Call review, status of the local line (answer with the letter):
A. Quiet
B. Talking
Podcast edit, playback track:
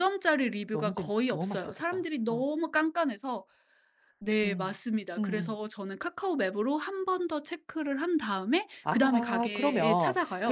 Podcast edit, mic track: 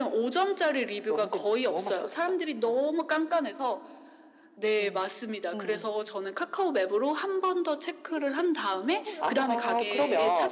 B